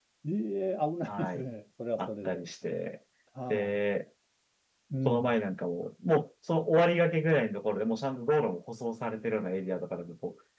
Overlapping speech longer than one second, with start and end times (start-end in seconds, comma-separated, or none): none